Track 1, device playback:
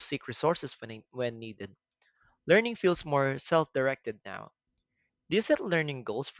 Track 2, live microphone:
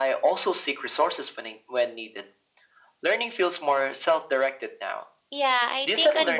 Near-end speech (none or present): present